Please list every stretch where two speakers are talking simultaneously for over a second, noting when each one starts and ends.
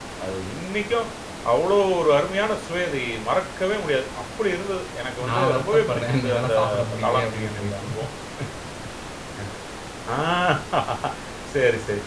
5.3-8.0

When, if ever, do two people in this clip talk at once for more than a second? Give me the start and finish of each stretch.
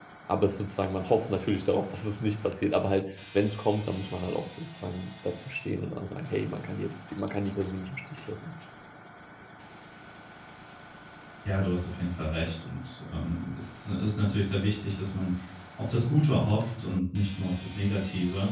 none

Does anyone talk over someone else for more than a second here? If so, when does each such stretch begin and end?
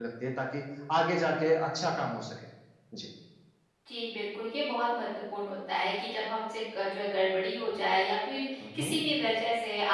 none

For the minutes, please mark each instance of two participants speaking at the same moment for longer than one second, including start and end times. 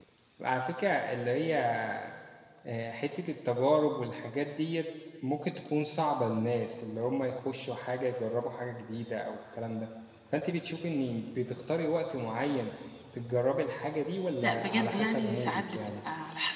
14.4-15.8

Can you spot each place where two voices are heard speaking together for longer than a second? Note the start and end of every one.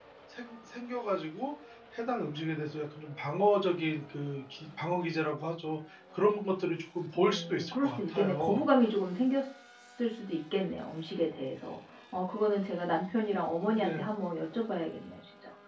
7.2-8.6

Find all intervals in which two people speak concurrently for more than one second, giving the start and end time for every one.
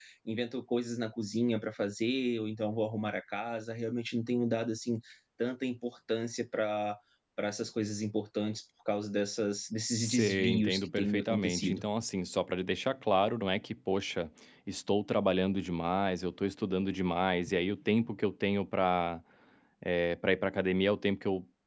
10.0-11.8

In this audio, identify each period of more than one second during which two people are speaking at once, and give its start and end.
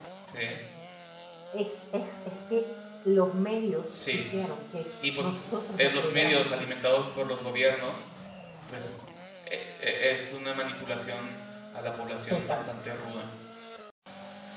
5.2-6.7

